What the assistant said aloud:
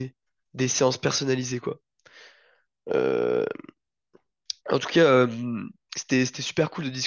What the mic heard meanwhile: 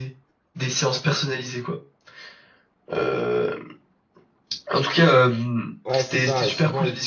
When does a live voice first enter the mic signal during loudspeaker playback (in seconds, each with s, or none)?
5.8 s